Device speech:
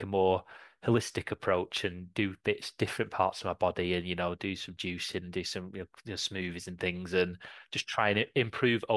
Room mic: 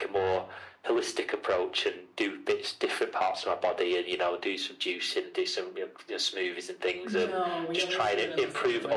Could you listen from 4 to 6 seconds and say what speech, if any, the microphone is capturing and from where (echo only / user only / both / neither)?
echo only